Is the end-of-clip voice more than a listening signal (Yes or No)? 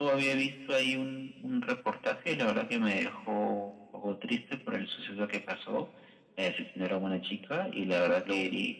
No